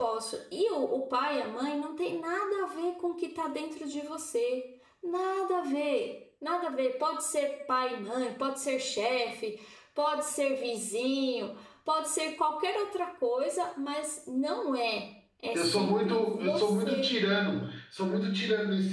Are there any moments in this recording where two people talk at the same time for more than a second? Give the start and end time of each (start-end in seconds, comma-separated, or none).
15.5-17.1